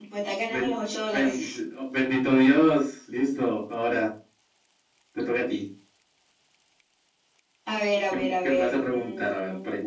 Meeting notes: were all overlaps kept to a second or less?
No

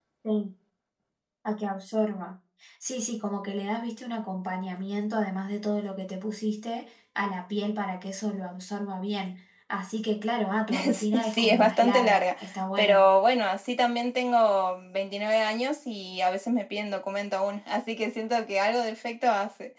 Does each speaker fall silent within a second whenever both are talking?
No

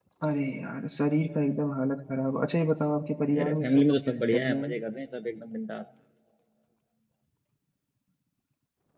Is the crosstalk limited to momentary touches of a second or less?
No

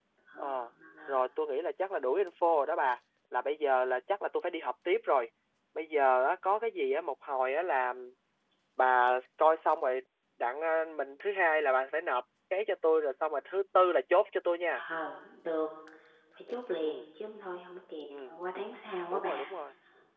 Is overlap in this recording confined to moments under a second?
Yes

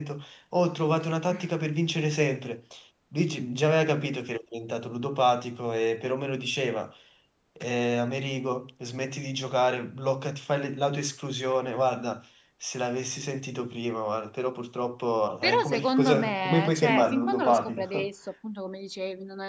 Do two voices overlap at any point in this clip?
Yes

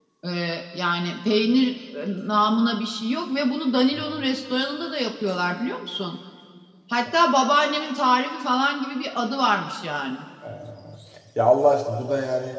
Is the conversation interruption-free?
Yes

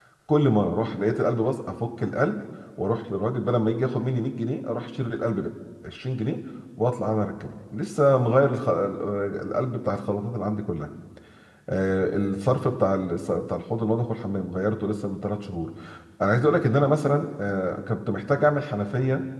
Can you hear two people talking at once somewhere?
No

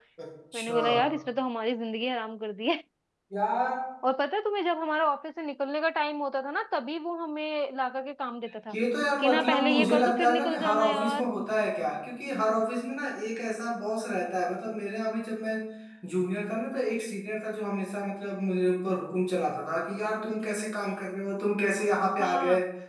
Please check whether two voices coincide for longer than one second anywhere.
Yes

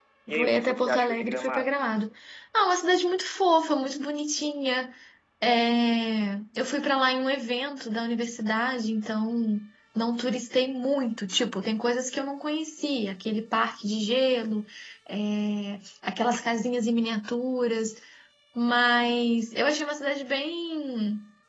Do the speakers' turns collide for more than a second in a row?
Yes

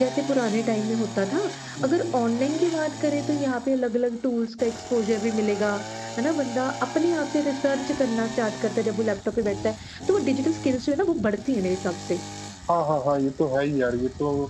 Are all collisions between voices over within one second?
Yes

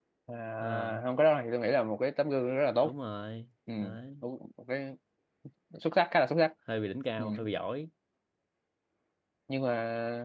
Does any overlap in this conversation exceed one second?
No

